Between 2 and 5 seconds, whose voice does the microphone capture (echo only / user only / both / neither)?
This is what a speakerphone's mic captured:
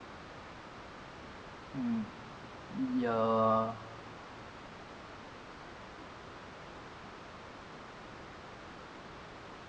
user only